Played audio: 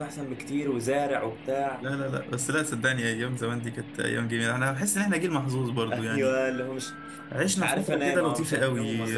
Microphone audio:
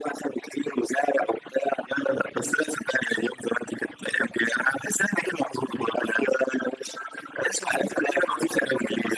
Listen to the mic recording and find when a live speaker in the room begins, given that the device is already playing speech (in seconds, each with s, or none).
none